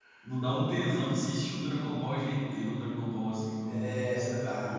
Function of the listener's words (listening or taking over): taking over